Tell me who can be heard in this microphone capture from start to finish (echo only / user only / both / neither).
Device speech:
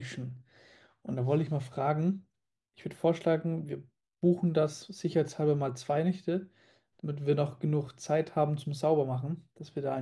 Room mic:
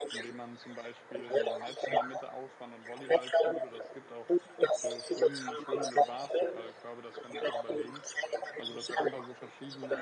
both